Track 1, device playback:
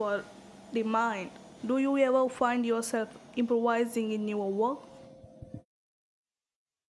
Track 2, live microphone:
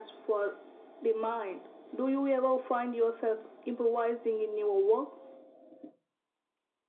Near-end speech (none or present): none